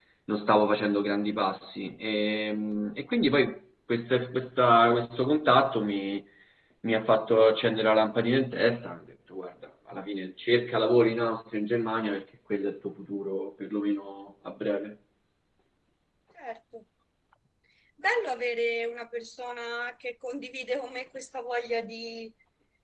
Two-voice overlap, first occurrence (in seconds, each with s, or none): none